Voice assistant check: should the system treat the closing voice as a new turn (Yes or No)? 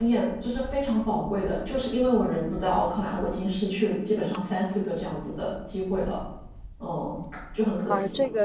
Yes